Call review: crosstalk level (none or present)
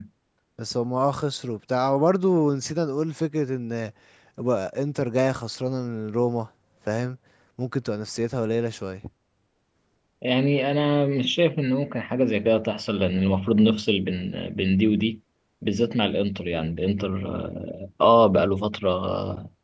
none